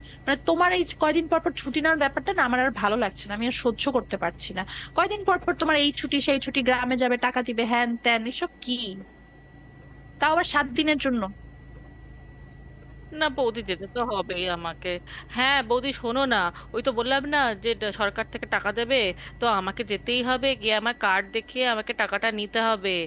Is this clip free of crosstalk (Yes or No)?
Yes